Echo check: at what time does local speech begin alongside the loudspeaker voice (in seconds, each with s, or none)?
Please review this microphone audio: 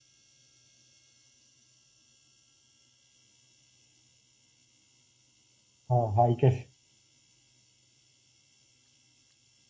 5.9 s